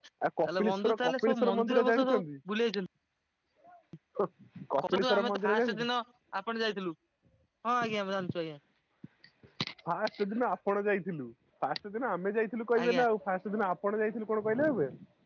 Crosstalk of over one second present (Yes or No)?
Yes